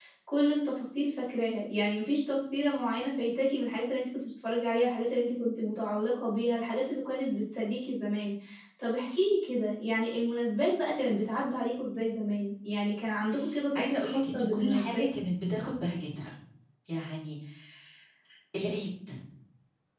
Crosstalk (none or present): present